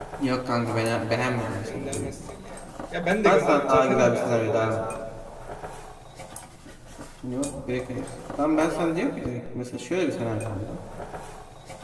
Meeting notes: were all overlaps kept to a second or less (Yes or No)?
No